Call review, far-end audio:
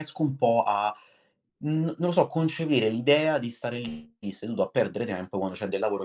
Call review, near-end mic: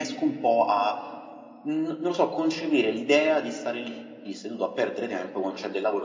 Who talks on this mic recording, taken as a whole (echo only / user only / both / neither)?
echo only